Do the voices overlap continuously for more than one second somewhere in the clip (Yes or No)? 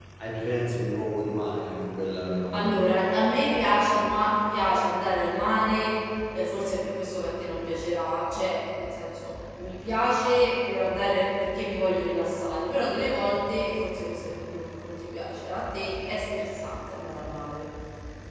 No